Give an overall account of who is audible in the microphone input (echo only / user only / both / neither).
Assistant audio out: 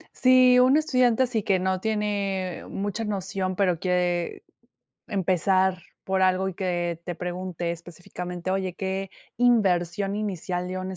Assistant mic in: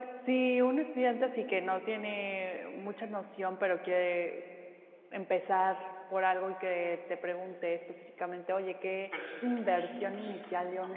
both